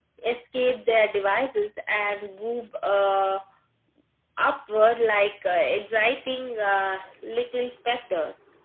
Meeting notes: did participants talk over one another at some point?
No

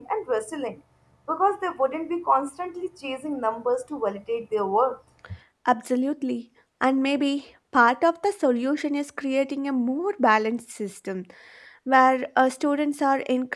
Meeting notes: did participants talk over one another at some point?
No

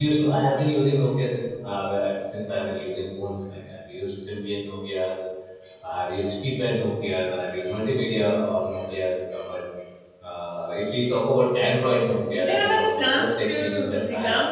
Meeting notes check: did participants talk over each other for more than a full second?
Yes, from 12.3 s

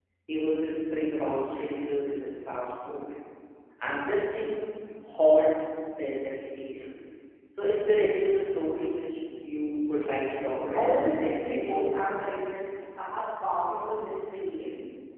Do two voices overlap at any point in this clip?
Yes, from 10.4 s

